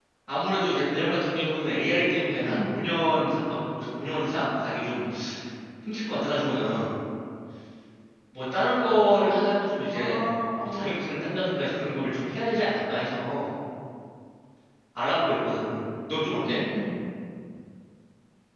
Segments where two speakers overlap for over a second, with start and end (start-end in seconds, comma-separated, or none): none